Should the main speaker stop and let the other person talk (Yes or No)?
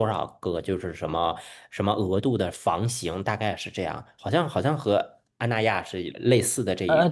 Yes